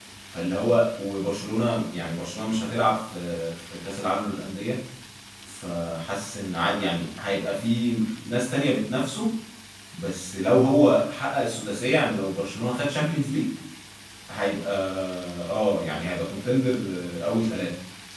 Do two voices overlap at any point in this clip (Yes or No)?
No